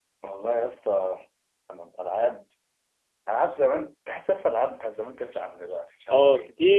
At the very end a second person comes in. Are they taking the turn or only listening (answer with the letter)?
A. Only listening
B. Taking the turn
B